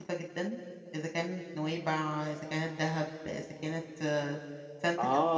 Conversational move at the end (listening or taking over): taking over